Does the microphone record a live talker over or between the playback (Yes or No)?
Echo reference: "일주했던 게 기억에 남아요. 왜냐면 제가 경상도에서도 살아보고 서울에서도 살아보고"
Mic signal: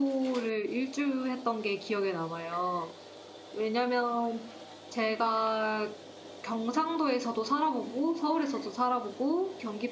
No